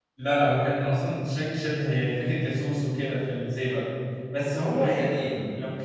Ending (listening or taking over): listening